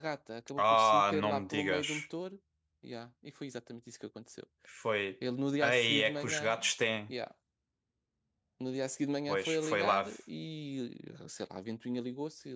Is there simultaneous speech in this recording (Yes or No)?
Yes